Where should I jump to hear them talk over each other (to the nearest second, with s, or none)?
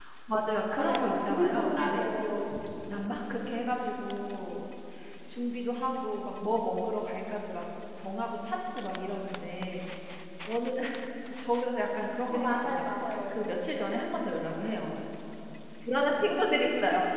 1 s